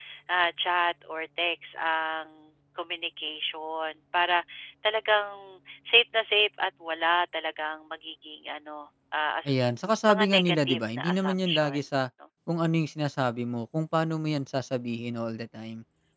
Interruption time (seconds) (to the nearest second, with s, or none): 10 s